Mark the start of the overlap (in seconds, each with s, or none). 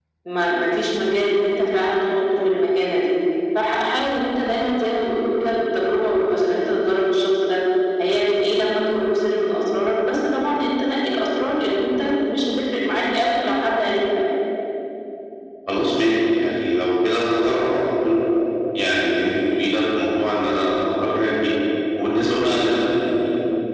none